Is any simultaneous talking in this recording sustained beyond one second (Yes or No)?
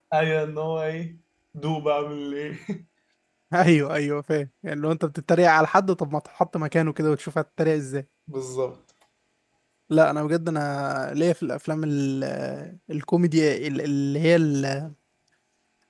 No